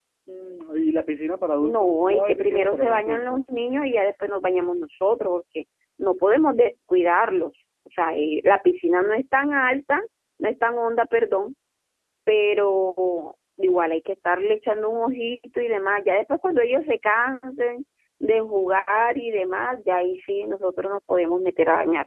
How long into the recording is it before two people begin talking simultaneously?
2 s

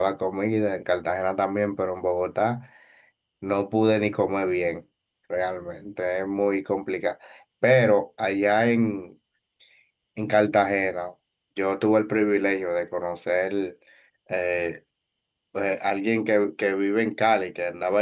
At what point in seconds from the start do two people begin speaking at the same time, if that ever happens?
none

